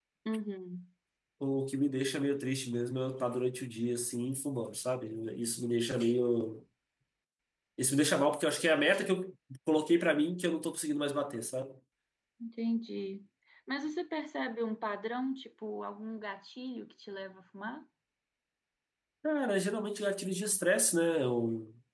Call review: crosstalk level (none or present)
none